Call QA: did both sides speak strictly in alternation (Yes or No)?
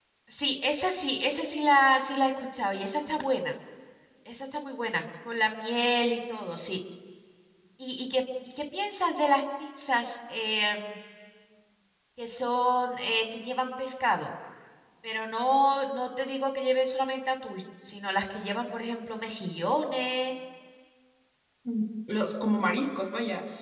Yes